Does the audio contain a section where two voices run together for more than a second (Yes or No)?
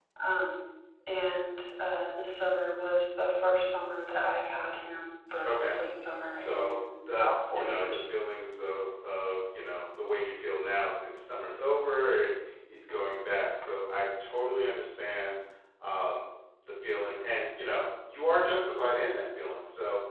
Yes